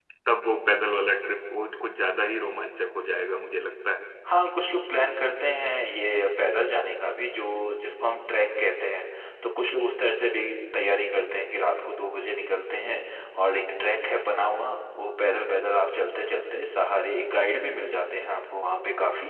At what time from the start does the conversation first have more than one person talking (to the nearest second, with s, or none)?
none